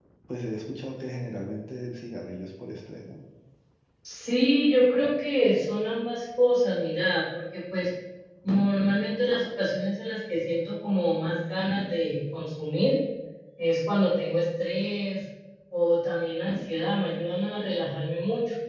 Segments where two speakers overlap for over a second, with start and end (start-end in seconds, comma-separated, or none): none